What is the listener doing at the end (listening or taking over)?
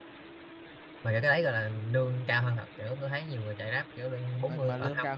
taking over